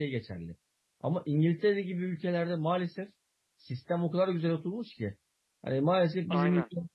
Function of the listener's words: listening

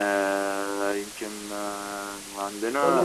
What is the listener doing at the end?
taking over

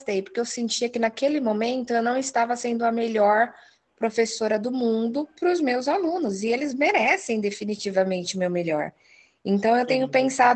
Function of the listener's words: listening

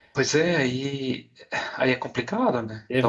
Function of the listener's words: taking over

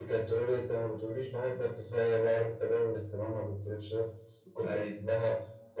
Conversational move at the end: listening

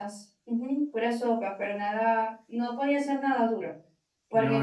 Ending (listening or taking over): listening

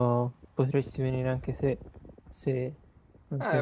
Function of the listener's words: taking over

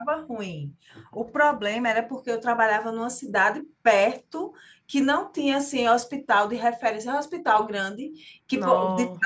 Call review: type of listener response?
listening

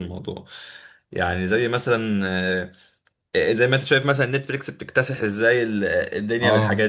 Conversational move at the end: listening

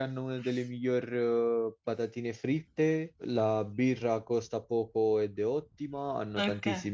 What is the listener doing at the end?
listening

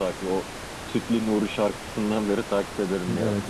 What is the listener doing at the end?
taking over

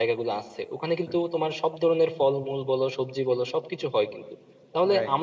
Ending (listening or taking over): listening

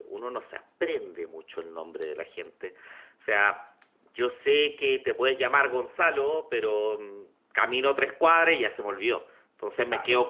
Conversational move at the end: listening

